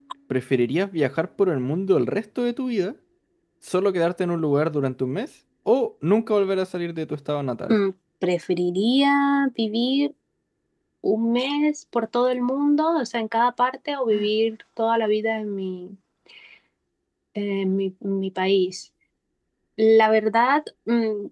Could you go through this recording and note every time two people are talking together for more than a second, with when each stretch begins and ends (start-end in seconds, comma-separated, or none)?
none